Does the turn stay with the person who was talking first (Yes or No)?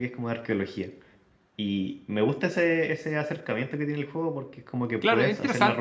No